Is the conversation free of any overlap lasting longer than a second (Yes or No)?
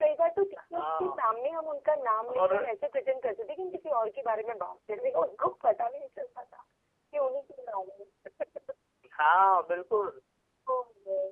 Yes